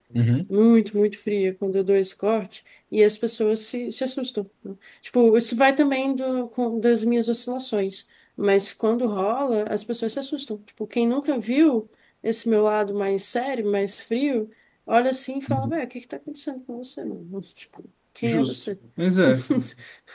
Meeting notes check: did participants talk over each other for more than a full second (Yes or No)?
No